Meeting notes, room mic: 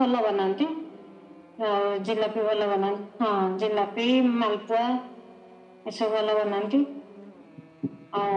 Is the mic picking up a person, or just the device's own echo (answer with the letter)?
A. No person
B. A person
A